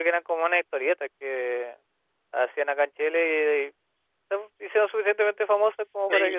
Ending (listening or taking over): taking over